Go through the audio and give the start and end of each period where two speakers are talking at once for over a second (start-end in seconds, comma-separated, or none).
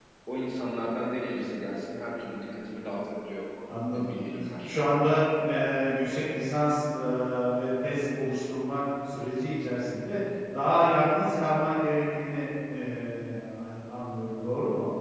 none